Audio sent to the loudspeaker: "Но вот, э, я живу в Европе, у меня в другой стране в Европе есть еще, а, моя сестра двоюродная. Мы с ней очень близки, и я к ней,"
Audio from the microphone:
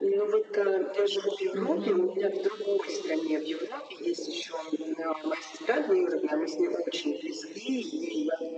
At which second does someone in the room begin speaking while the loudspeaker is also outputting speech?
1.5 s

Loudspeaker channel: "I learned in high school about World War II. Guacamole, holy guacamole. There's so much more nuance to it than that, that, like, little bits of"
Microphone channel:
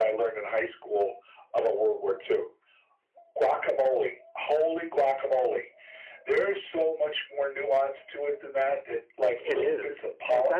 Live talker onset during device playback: 9.4 s

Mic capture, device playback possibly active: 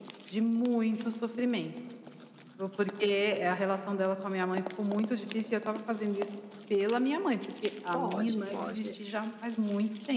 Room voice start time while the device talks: 7.9 s

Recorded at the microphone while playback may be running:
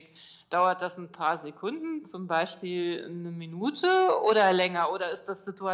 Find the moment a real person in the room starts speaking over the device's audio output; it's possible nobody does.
none

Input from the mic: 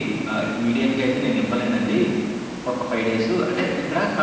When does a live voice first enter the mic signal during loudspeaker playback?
none

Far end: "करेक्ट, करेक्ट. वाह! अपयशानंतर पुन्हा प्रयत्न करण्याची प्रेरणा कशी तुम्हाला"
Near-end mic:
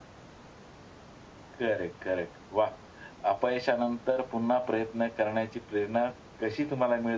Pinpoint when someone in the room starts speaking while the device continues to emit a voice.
none

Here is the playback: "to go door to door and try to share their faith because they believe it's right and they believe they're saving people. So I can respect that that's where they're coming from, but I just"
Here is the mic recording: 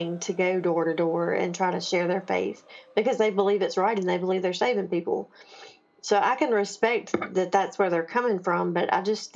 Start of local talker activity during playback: none

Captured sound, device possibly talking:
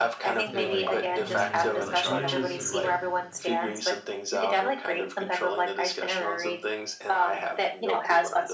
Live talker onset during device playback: 0.4 s

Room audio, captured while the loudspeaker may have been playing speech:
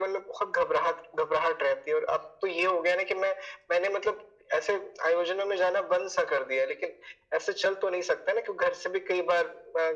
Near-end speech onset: none

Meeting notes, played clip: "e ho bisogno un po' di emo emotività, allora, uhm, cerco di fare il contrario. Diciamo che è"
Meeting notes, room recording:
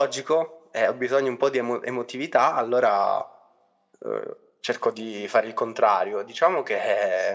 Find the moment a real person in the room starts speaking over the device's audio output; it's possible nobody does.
none

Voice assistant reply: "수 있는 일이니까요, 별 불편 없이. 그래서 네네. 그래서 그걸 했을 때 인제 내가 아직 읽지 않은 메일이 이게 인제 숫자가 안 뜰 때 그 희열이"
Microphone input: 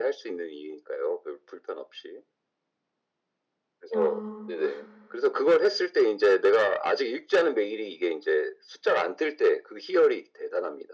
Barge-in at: 3.9 s

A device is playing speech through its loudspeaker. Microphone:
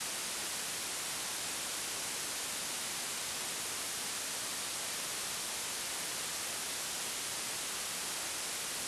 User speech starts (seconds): none

